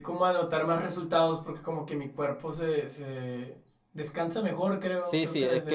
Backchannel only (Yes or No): No